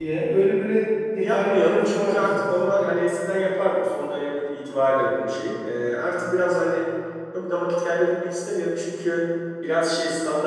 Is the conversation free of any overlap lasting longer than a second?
No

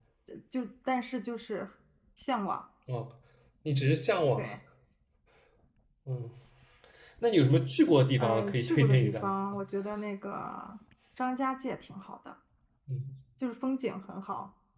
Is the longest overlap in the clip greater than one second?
Yes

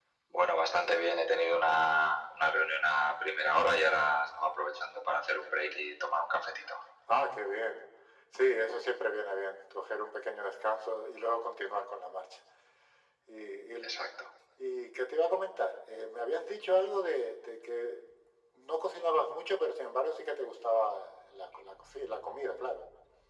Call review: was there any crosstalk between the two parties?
No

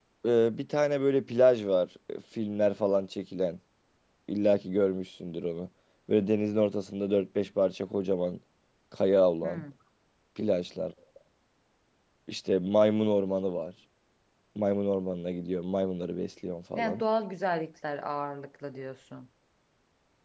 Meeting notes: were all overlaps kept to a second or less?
Yes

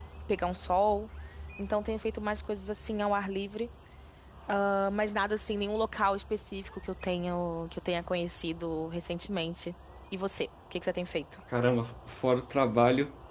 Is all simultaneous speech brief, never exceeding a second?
Yes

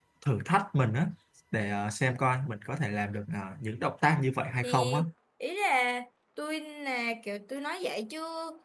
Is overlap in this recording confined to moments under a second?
Yes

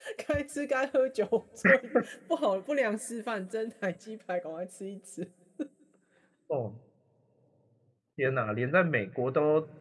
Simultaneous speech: No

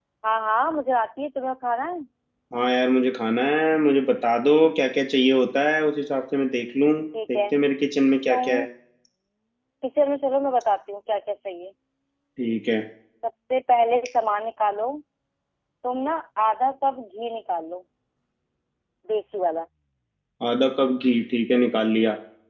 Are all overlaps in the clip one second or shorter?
Yes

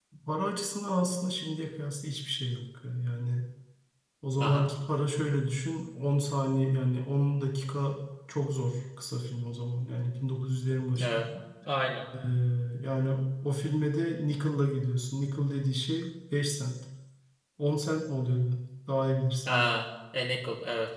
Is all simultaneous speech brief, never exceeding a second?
Yes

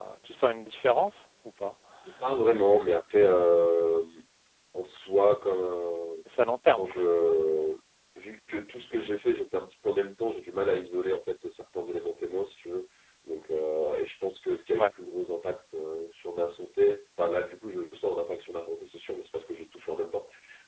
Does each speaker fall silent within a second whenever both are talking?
Yes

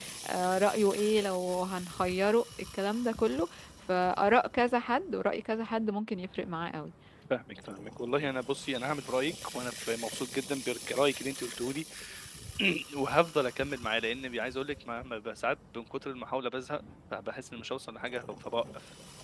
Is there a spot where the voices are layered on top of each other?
No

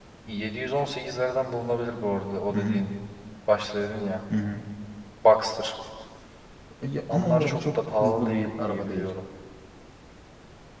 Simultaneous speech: Yes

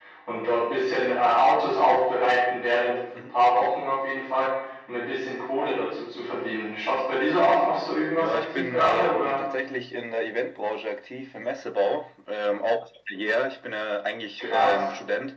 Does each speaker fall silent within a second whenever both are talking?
No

